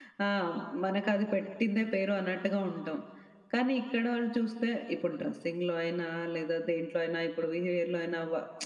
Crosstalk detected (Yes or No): No